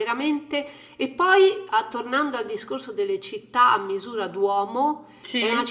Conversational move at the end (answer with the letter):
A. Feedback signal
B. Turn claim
A